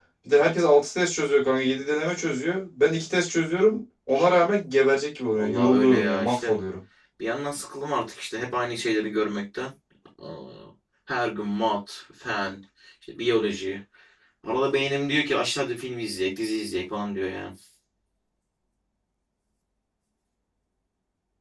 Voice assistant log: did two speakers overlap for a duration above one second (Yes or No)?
Yes